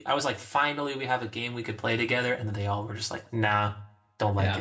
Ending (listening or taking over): taking over